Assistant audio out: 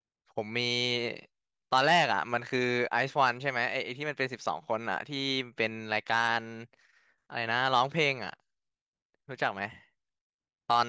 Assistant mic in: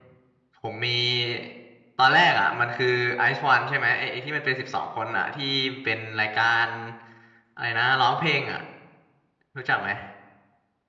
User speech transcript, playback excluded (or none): none